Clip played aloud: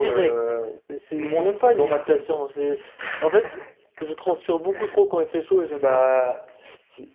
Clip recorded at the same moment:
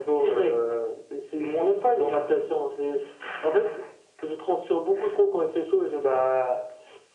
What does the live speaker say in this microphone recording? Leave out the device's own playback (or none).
none